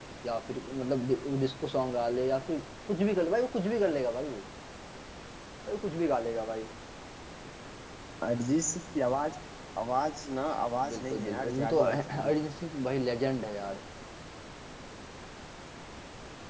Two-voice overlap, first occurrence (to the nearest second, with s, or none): 11 s